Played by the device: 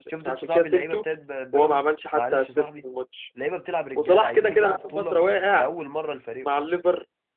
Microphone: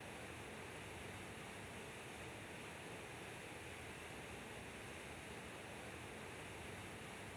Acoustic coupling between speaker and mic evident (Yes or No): No